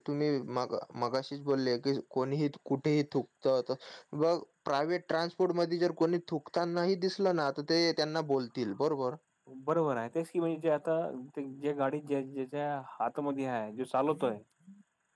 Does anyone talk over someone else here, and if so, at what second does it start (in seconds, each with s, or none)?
none